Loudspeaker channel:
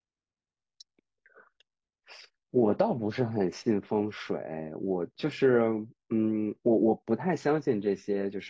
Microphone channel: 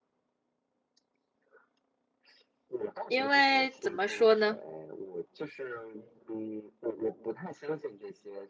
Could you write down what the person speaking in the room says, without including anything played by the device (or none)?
因为怎么说呢，